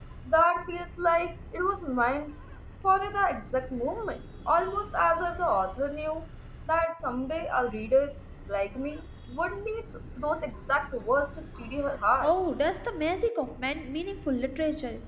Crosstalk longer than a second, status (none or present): none